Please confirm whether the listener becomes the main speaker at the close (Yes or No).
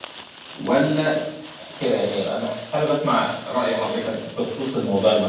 Yes